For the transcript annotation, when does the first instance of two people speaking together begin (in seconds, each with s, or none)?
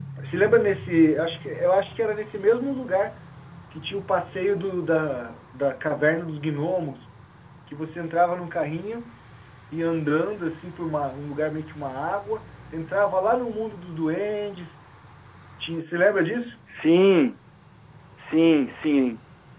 none